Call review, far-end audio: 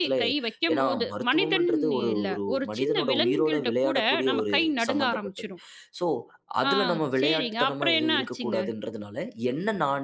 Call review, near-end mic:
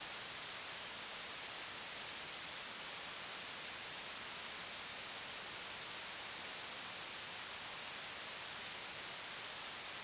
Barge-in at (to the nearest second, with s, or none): none